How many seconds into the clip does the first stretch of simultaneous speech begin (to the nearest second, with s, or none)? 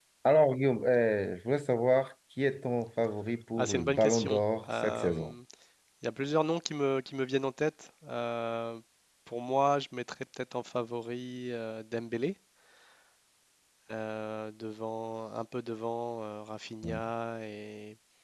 4 s